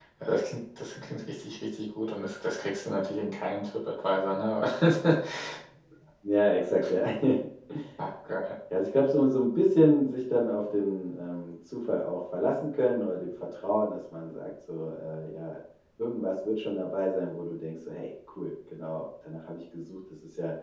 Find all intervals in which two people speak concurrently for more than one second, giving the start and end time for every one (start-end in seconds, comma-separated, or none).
none